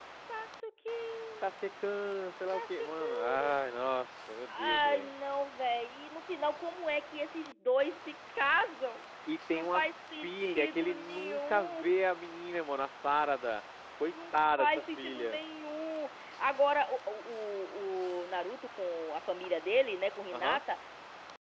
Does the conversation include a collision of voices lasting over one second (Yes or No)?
Yes